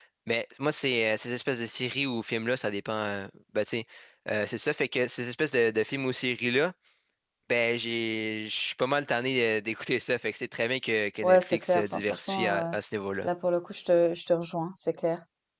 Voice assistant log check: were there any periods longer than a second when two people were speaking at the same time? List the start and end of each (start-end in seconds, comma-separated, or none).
11.2-12.7